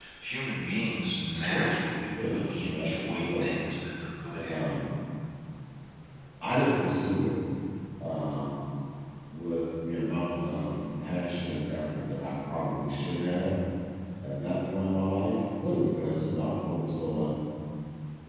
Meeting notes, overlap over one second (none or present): present